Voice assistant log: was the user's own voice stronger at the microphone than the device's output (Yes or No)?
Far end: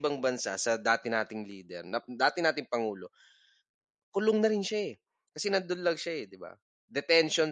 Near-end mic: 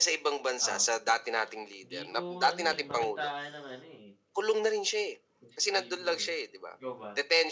No